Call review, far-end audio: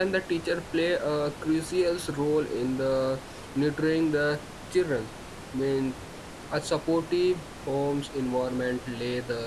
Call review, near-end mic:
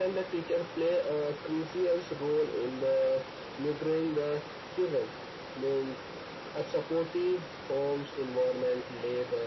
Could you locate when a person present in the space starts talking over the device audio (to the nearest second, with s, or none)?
none